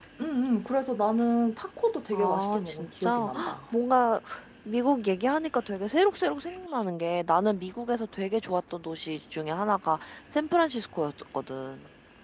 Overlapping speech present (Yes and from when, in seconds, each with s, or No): Yes, from 2.1 s